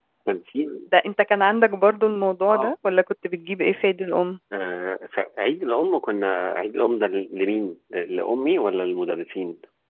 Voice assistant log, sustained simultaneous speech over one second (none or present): none